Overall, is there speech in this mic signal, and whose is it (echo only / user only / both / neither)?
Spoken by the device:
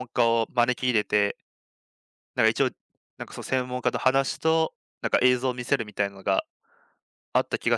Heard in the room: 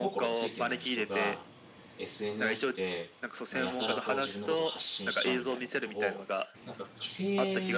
both